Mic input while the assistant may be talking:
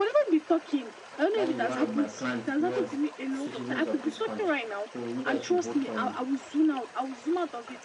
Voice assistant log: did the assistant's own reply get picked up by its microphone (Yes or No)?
Yes